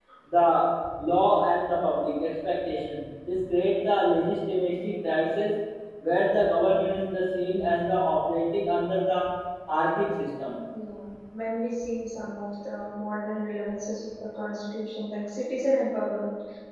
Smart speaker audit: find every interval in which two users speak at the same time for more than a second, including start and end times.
none

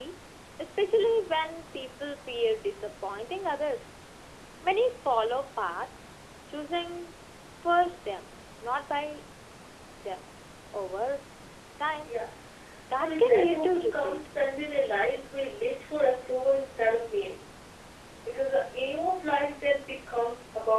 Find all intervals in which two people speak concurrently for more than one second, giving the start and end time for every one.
12.9-14.3

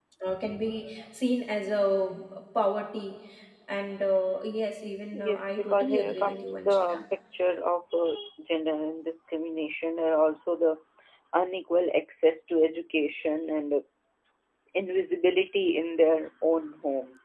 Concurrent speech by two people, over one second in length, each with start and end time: 5.1-7.0

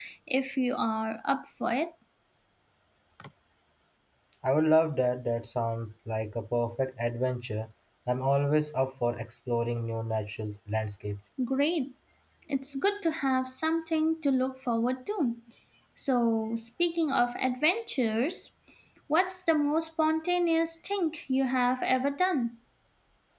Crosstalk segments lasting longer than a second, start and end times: none

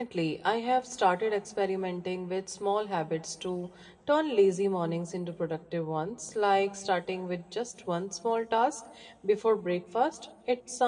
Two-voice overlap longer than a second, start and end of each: none

